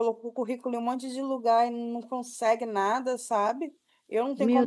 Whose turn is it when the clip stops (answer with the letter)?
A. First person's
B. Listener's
A